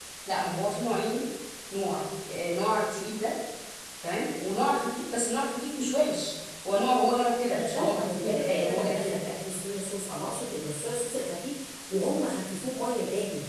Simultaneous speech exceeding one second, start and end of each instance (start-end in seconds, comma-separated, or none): 7.5-9.2